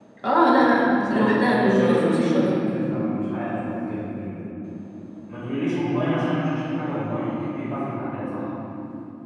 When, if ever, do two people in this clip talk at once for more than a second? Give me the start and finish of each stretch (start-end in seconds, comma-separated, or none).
1.1-2.5